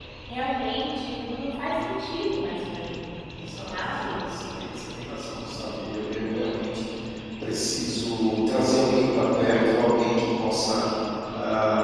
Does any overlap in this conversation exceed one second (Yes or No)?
No